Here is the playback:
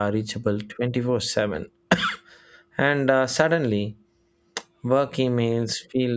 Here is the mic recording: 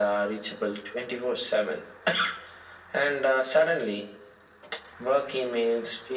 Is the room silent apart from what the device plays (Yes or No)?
Yes